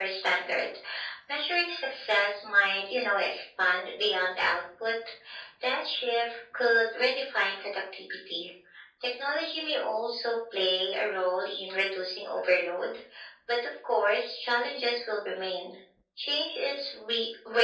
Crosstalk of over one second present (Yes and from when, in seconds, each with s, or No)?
No